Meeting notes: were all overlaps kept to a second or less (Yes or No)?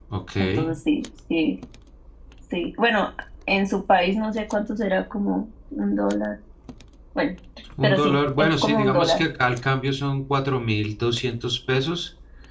No